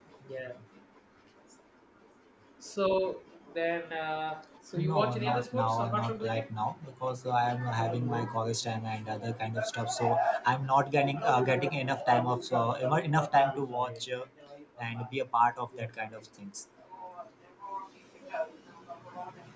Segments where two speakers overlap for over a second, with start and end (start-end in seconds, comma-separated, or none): 4.8-6.5